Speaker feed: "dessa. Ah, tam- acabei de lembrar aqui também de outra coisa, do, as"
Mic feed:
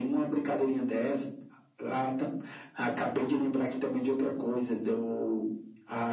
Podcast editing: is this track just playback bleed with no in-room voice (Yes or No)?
Yes